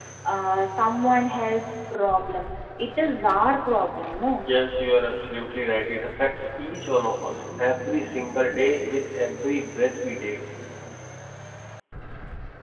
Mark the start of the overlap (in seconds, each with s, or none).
none